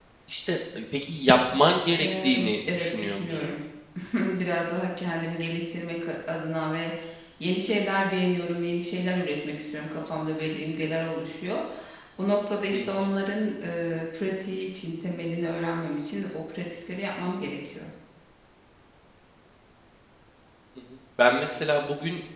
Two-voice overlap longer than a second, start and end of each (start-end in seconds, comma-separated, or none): 2.0-3.5